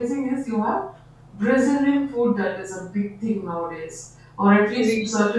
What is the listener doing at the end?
listening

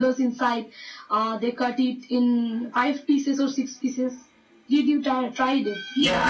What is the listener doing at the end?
taking over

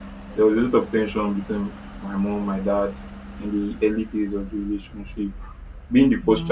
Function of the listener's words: listening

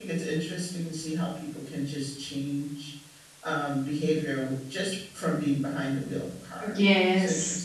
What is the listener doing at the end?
taking over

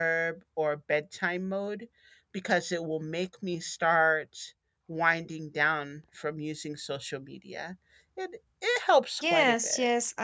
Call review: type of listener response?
taking over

